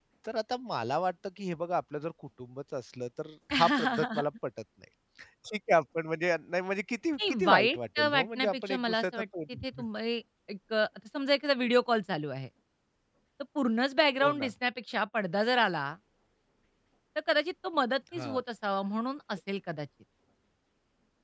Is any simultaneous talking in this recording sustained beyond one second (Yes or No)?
Yes